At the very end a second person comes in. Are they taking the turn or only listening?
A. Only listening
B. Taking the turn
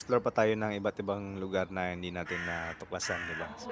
B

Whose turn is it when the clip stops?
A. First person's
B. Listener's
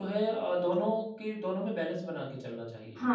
B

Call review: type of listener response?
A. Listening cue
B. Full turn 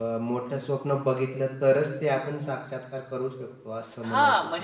B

